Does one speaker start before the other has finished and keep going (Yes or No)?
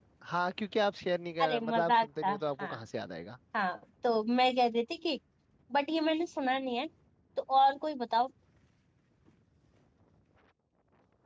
Yes